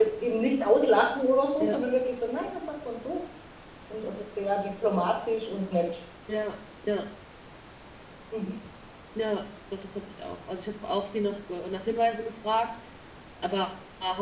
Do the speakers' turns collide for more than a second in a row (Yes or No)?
No